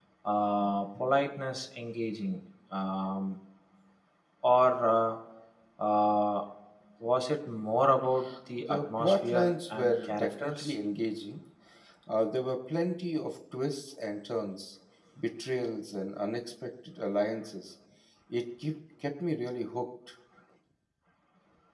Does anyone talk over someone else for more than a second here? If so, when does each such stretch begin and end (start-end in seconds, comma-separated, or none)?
8.6-10.7